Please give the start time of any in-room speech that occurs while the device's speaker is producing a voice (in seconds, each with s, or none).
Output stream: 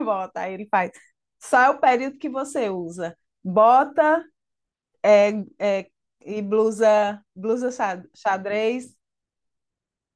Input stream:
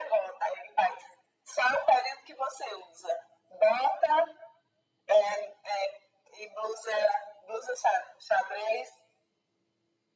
none